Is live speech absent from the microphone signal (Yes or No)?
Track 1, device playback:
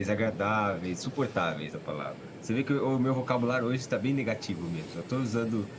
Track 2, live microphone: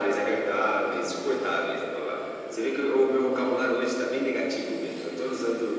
Yes